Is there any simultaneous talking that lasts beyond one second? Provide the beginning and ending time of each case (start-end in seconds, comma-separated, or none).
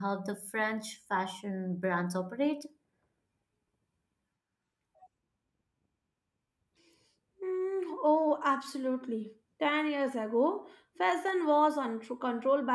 none